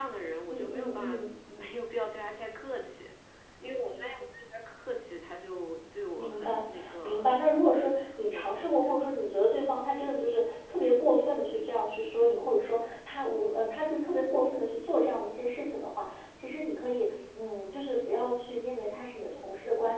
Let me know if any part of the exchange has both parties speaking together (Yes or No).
Yes